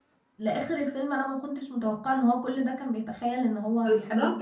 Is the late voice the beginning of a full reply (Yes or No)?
Yes